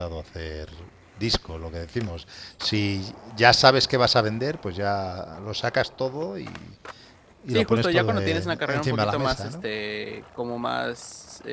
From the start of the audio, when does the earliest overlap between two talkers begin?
8 s

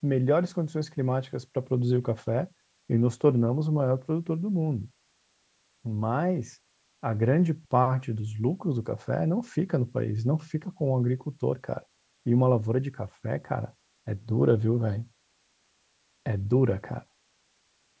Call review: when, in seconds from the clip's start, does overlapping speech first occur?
none

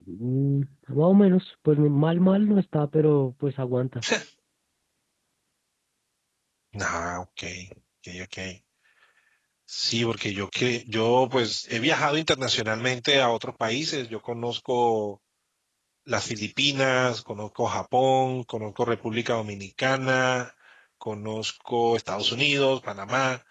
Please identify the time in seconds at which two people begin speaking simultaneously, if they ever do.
none

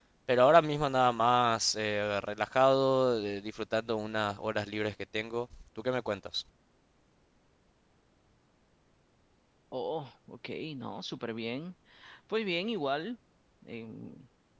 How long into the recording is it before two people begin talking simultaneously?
none

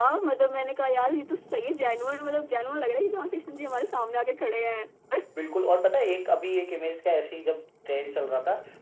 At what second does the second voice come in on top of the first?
none

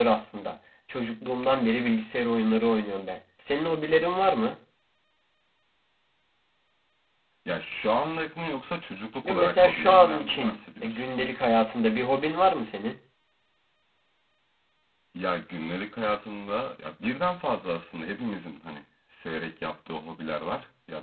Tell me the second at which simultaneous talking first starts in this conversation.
9 s

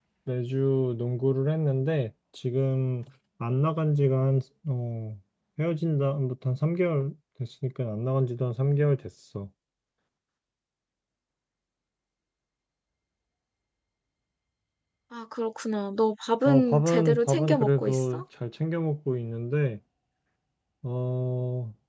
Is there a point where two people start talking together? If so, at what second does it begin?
16 s

